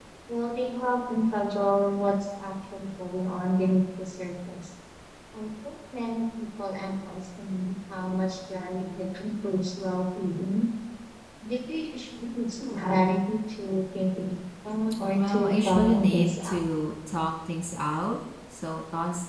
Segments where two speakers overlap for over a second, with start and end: 15.2-16.6

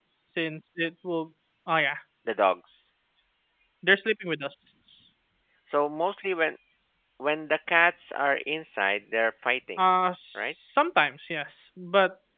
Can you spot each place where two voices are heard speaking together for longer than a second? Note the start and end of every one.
none

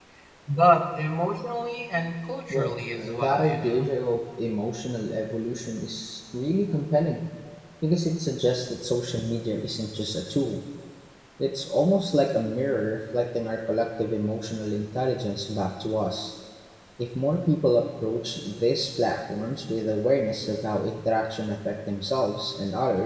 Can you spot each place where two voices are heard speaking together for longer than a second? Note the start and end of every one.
2.5-3.8

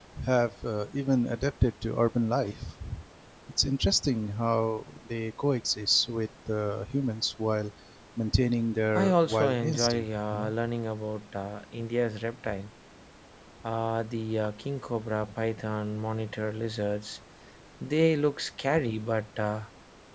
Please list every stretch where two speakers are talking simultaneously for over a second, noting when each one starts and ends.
8.9-10.5

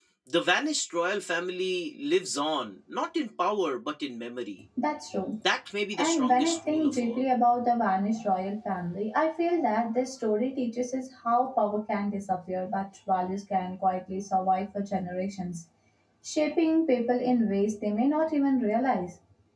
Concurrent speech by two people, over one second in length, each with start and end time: 6.0-7.2

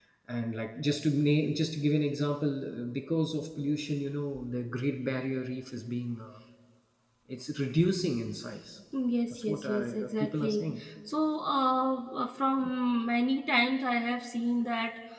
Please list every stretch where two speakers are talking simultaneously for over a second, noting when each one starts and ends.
9.3-10.8

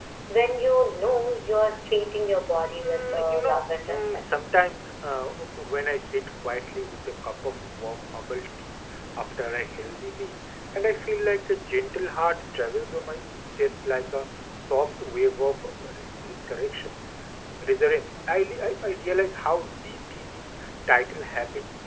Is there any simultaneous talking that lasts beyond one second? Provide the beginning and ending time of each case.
2.8-4.2

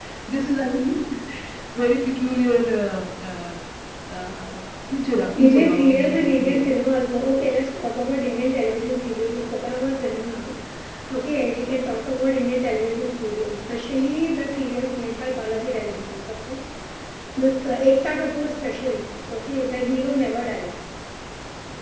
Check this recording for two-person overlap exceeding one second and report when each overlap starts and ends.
5.4-6.6

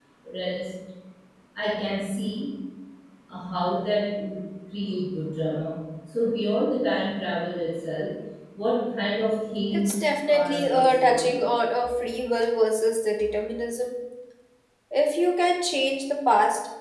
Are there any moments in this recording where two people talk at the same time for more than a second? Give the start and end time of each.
9.7-11.4

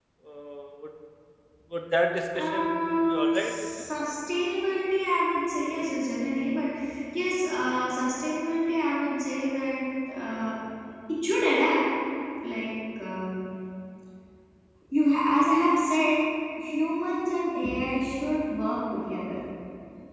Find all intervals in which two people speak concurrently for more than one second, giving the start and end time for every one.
2.4-3.7

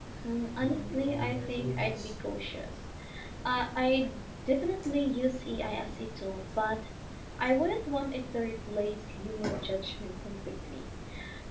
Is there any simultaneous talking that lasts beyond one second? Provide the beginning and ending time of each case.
0.6-2.1

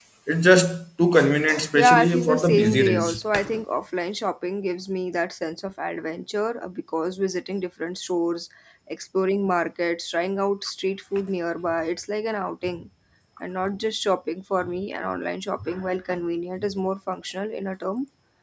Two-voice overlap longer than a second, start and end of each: 1.8-3.2

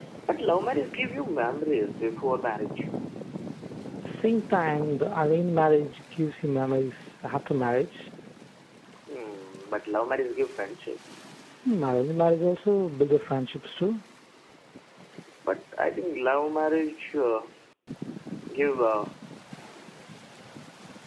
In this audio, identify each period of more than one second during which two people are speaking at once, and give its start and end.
none

